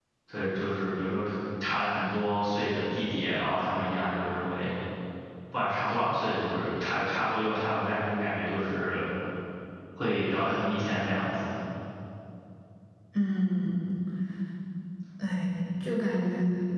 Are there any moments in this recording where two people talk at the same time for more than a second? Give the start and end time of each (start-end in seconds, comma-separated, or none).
none